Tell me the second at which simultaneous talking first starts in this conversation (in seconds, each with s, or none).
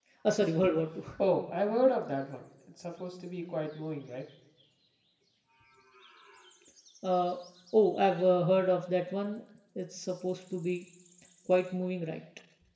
none